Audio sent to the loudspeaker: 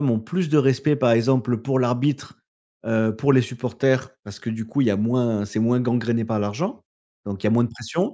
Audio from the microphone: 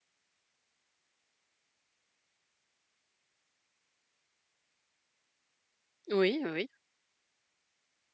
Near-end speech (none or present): present